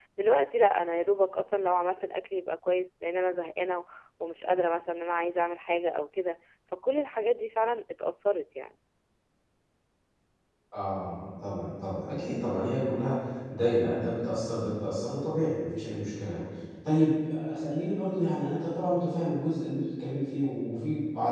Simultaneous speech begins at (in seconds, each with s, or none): none